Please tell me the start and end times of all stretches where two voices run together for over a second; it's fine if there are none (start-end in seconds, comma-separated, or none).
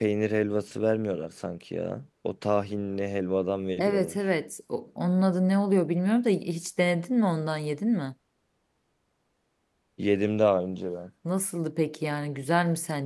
none